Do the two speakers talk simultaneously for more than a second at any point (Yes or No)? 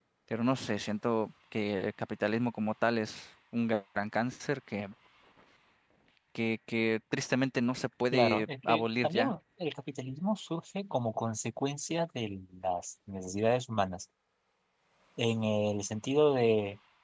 Yes